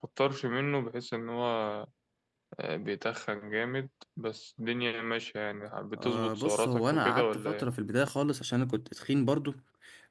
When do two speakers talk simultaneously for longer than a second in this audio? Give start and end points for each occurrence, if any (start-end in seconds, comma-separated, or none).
6.0-7.6